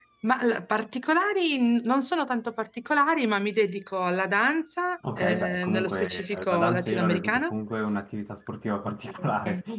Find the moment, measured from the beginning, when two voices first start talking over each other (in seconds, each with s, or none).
5.2 s